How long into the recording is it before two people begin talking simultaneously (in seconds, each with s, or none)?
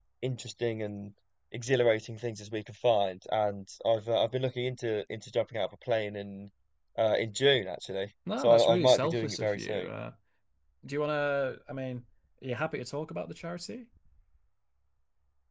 8.3 s